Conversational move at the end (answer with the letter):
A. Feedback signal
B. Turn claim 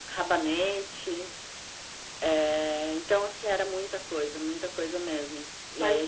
A